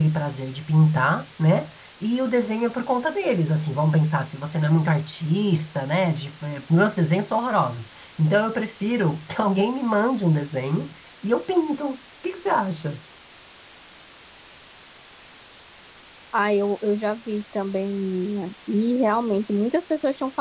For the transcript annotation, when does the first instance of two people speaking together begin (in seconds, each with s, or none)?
none